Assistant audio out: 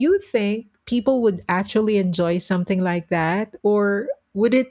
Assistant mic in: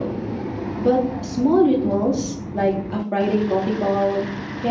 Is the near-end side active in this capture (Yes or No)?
Yes